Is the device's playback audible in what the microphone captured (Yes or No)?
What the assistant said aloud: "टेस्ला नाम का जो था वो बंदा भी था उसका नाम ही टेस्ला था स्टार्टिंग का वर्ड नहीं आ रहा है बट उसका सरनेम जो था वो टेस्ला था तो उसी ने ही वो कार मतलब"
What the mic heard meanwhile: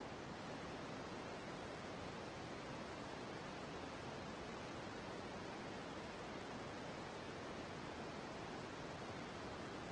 No